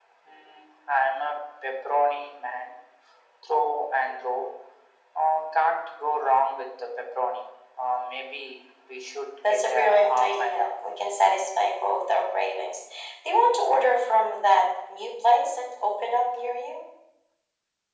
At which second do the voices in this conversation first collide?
9.4 s

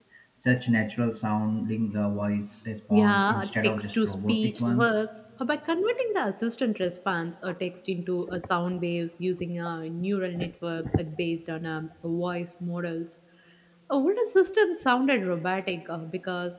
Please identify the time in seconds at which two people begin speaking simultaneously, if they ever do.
2.9 s

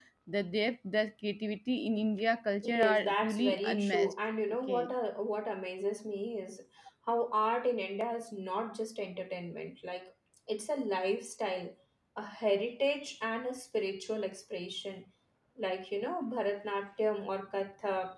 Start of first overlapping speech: 2.6 s

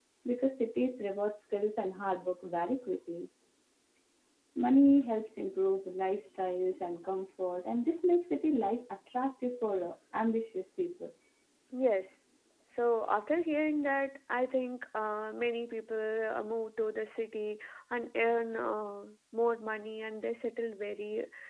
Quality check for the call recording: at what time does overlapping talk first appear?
none

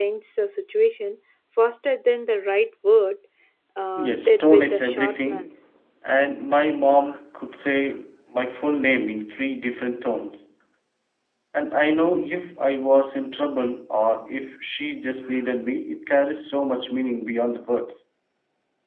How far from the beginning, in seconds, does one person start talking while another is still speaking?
4.0 s

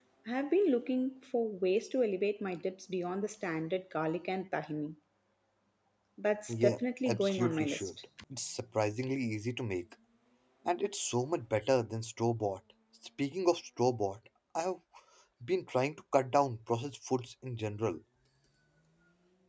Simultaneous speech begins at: 6.6 s

